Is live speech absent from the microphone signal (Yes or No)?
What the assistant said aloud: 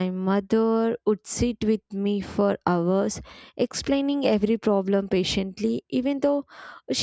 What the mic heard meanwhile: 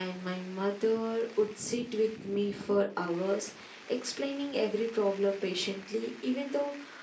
Yes